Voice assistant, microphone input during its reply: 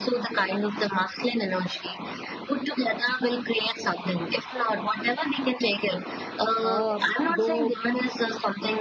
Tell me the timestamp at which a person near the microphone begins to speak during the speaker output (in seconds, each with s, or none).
6.6 s